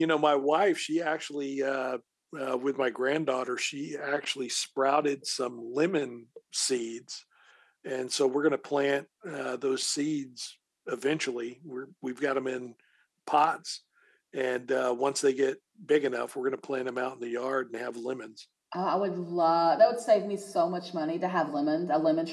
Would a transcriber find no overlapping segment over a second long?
Yes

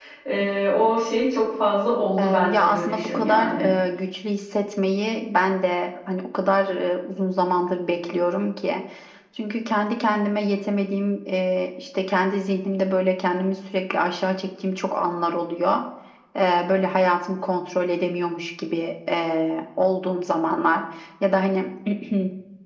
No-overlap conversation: No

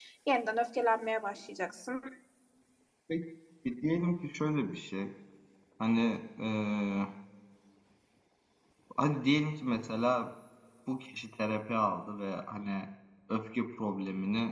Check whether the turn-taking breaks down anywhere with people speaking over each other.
No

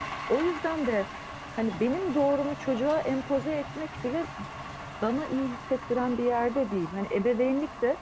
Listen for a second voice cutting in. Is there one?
No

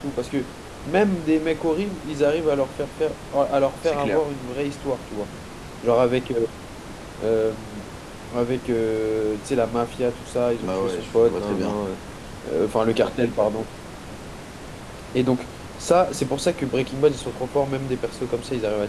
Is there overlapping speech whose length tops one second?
Yes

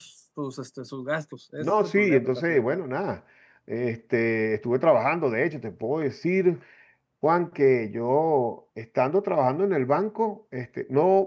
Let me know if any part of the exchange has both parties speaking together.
Yes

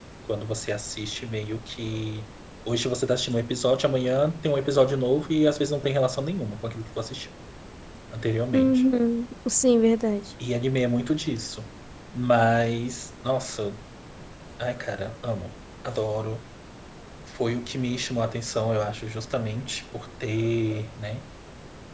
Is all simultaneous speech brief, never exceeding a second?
Yes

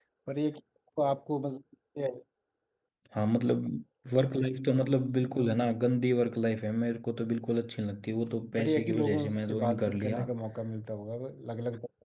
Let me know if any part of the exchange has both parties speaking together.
Yes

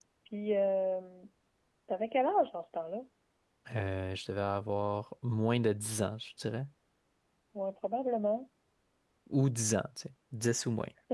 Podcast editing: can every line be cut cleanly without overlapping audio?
Yes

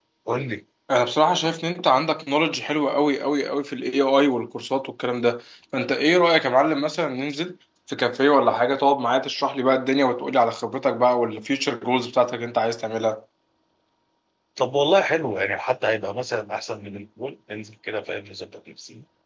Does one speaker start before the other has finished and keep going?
No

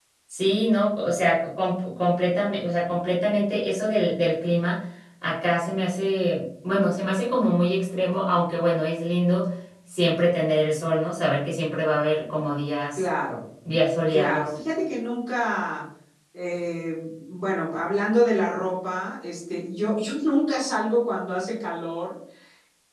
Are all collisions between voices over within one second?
Yes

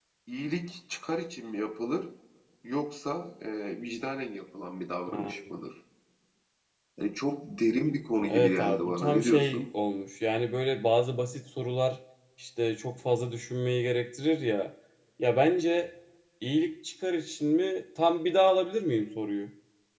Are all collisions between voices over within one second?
No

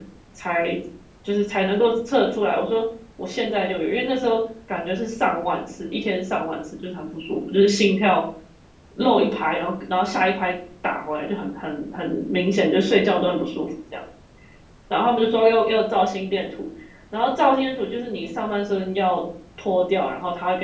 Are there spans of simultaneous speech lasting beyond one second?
No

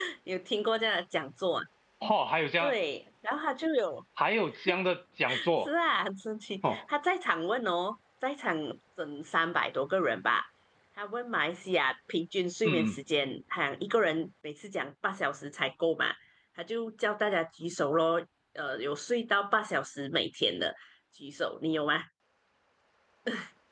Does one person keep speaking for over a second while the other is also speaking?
No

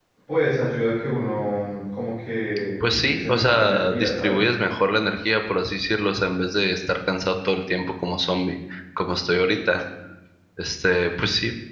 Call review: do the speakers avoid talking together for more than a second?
No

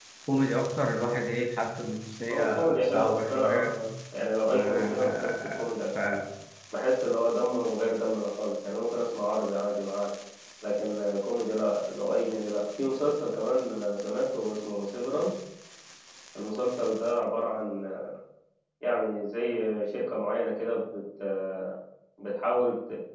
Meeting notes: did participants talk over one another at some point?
Yes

